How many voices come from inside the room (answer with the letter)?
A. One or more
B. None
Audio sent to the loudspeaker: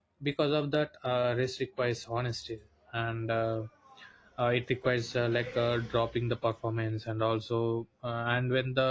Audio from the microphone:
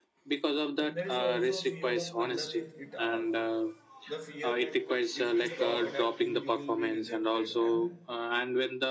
A